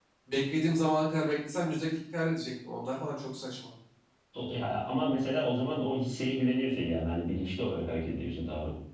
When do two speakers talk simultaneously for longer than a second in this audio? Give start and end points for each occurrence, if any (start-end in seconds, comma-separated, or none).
none